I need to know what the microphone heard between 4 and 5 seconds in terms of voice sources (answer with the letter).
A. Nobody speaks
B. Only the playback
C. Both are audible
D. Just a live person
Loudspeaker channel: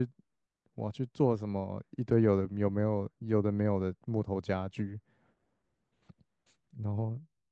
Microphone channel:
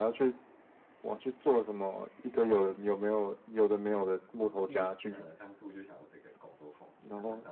C